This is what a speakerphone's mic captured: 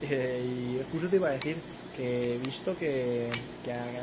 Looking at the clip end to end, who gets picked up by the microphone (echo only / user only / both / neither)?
user only